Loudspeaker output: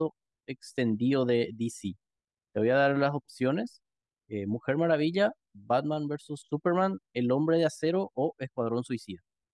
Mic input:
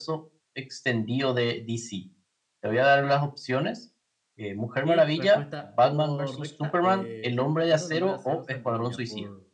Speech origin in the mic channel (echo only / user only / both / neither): both